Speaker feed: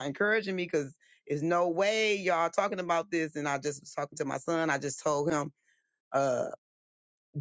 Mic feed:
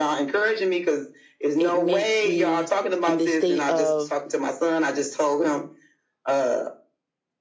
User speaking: Yes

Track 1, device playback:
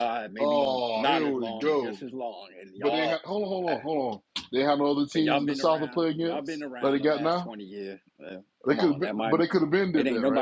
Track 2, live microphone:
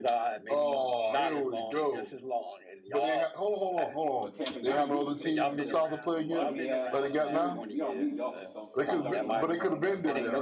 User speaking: Yes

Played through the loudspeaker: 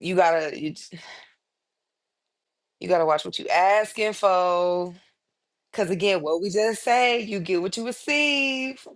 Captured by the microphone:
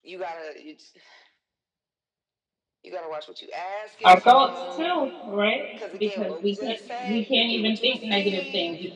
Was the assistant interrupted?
Yes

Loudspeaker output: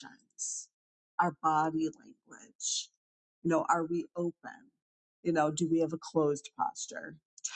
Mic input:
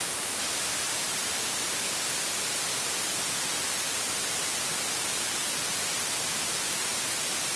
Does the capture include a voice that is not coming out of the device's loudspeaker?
No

